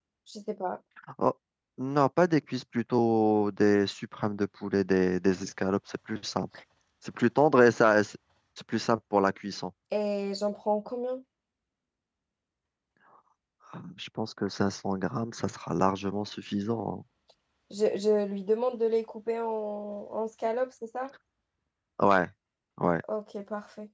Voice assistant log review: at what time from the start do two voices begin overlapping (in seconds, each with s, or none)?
none